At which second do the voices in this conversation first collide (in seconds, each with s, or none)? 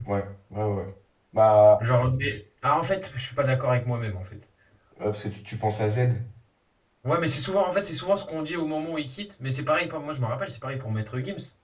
none